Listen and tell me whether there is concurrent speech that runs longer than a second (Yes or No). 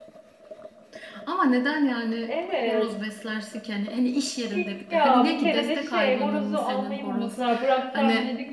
Yes